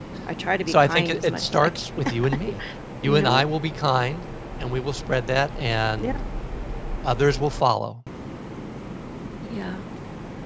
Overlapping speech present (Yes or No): Yes